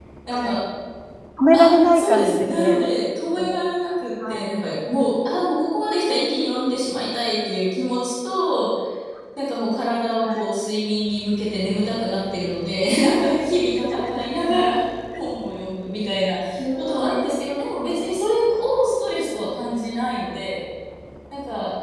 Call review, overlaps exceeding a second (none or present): present